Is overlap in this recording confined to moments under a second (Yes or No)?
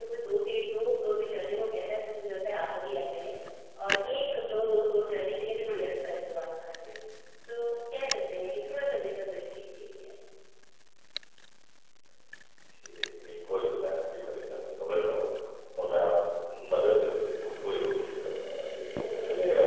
Yes